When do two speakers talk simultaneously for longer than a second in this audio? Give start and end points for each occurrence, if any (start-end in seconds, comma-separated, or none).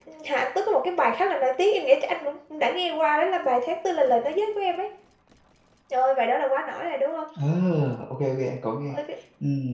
none